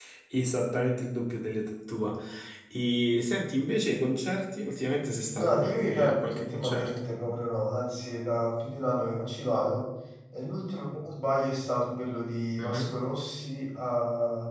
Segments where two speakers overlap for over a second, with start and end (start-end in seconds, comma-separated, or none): 5.3-7.1